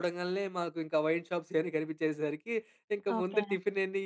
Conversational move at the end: listening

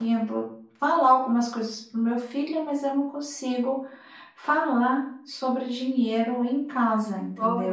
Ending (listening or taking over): taking over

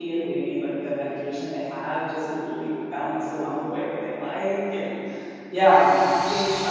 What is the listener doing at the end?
listening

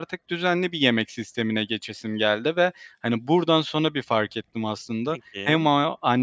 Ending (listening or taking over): listening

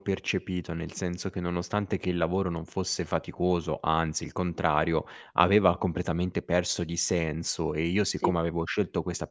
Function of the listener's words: listening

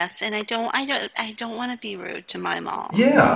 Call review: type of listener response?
taking over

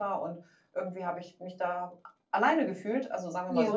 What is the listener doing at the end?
listening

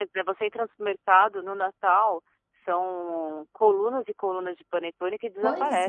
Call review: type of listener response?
taking over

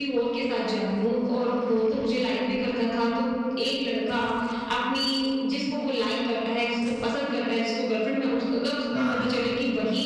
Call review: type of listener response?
listening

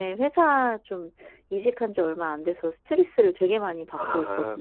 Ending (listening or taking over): taking over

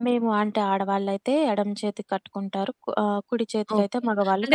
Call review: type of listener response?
taking over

